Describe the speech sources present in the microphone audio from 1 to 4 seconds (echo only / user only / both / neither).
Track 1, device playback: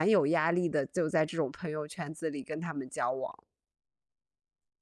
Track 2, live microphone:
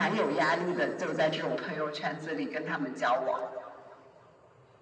echo only